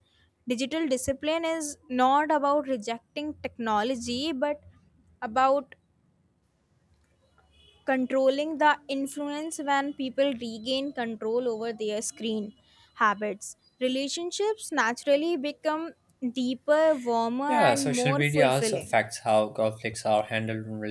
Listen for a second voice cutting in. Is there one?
Yes, from 17.5 s

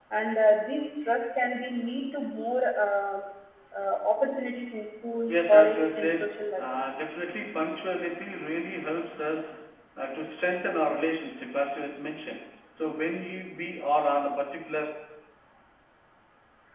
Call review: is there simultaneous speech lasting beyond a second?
Yes, from 5.3 s

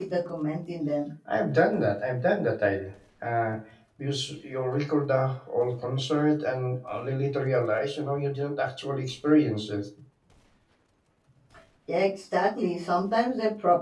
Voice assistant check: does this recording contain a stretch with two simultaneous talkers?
No

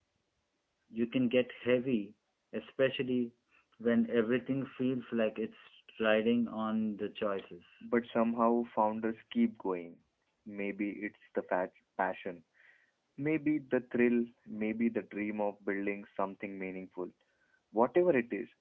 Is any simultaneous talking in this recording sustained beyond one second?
No

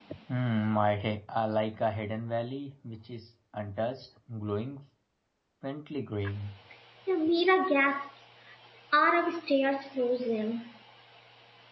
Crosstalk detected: No

